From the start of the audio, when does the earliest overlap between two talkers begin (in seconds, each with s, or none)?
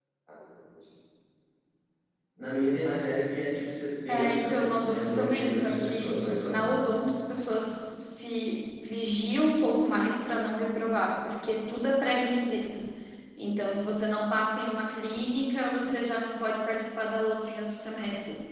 4.1 s